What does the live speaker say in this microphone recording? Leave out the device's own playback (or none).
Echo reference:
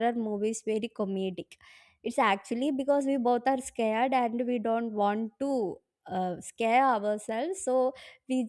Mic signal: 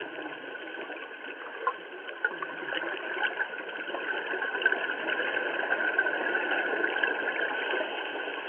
none